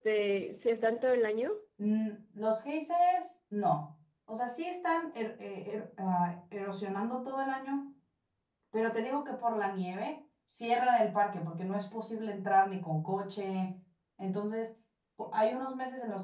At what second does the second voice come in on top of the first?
none

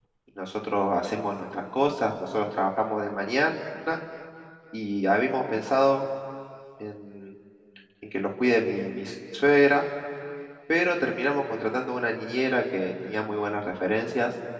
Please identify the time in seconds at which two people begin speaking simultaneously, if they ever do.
none

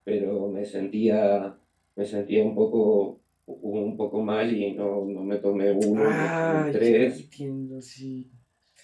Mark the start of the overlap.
6 s

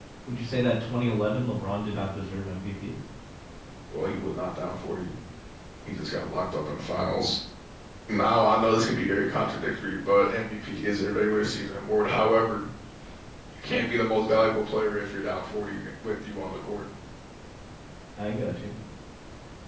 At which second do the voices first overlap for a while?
none

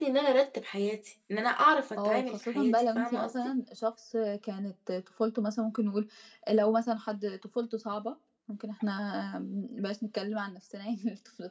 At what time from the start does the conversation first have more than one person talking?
2 s

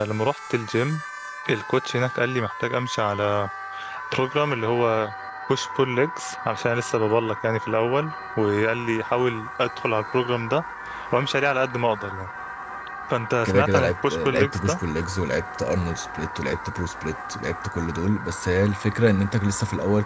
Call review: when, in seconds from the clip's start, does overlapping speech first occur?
13 s

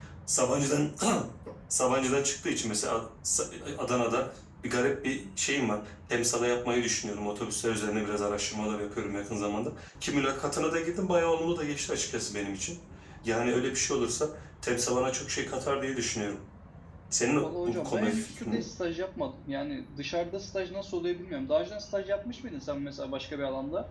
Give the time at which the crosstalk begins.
17 s

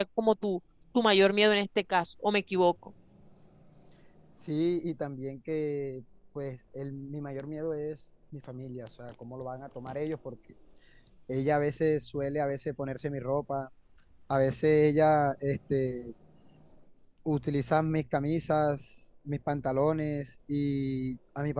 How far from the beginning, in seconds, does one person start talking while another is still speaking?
none

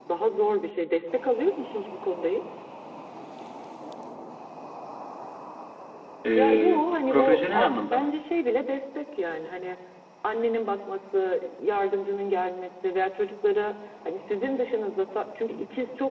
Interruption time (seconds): 6 s

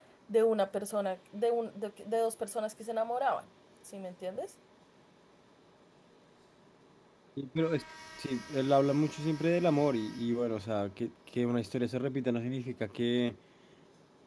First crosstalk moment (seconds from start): none

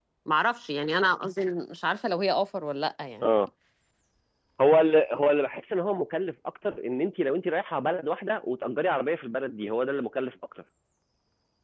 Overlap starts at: none

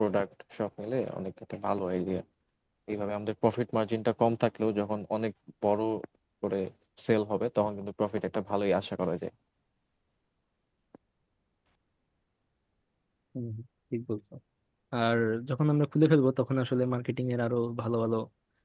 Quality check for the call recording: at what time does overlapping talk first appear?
none

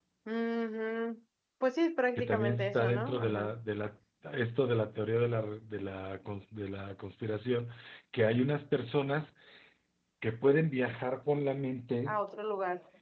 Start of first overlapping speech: 2 s

